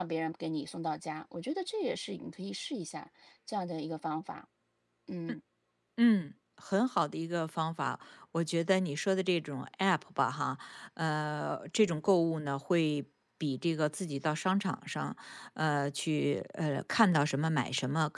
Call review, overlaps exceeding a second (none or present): none